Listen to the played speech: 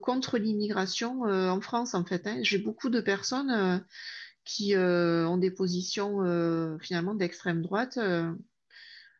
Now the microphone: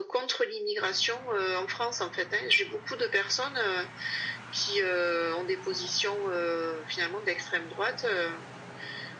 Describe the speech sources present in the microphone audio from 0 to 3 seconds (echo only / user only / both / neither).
echo only